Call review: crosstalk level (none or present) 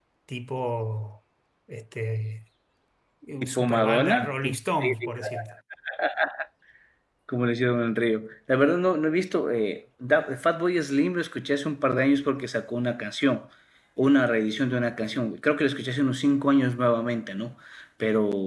present